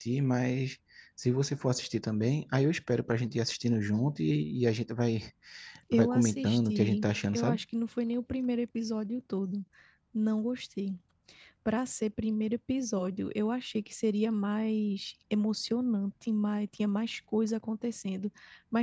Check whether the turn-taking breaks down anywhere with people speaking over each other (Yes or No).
Yes